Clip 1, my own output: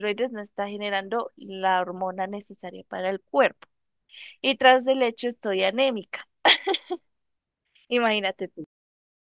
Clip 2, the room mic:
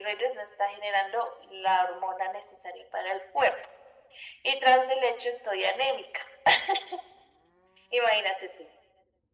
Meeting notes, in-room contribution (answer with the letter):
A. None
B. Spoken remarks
A